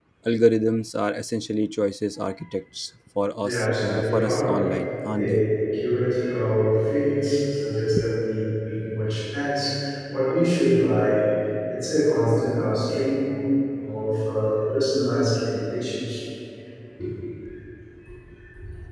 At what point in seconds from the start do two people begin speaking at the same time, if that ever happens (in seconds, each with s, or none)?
3.4 s